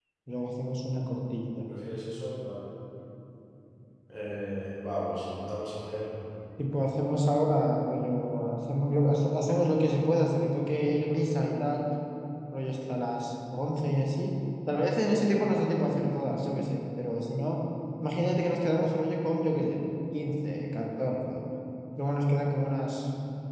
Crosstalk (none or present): none